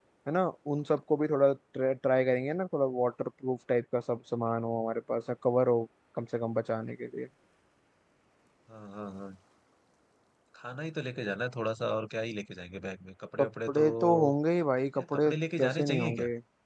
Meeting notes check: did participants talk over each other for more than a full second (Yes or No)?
Yes